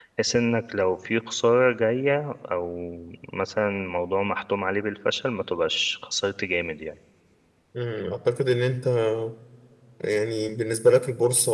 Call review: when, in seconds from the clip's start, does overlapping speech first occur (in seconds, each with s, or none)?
none